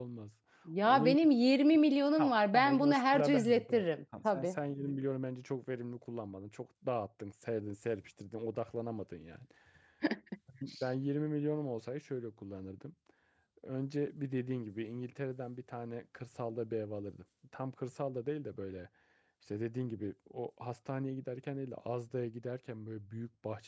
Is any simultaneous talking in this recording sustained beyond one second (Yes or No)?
Yes